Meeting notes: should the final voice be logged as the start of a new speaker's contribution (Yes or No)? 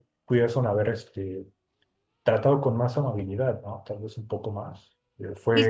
Yes